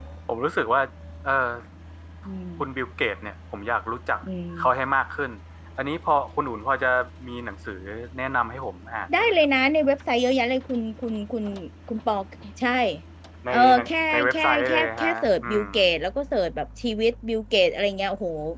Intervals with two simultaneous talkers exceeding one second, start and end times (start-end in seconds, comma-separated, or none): 13.5-15.6